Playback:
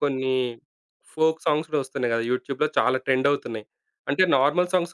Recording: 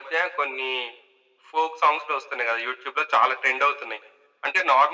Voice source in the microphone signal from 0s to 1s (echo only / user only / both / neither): echo only